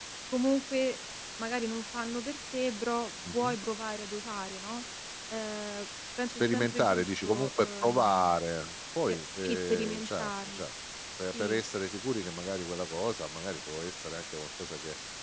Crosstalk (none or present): present